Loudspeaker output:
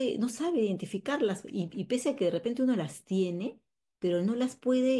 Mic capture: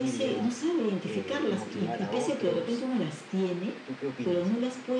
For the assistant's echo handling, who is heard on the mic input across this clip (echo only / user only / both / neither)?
both